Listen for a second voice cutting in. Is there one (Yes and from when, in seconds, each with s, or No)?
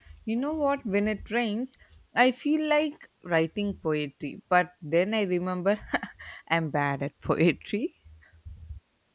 No